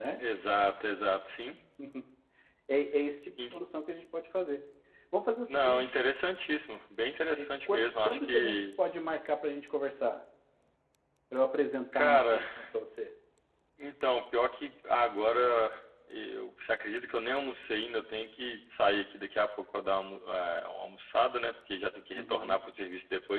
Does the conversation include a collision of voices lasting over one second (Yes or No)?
Yes